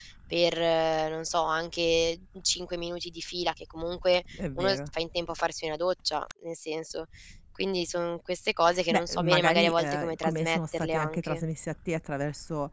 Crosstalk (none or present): present